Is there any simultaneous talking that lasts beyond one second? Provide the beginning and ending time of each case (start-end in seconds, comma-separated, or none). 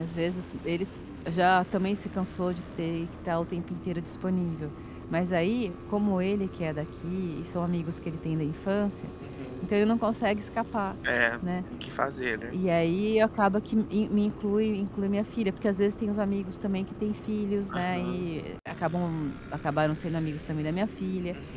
none